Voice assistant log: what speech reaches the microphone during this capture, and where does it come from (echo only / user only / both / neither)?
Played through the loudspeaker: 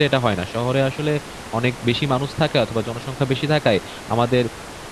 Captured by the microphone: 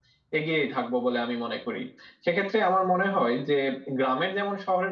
user only